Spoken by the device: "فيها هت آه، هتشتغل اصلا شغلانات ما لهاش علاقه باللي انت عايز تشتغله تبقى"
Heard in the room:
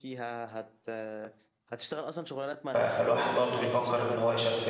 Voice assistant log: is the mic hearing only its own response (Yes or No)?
No